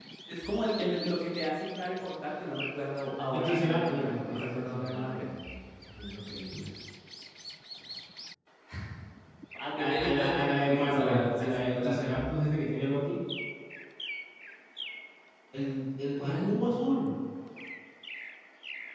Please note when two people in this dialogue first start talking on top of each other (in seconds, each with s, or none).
3.4 s